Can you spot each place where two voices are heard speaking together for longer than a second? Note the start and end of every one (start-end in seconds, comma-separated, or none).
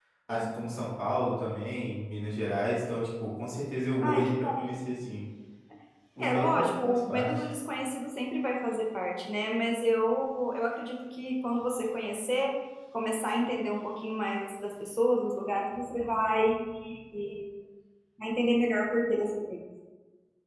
6.2-7.5